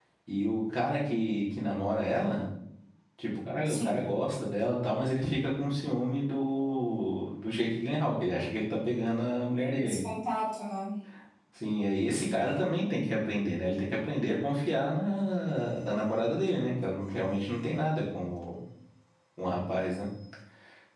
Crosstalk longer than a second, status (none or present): none